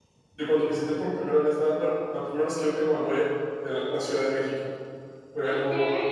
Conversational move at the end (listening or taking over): taking over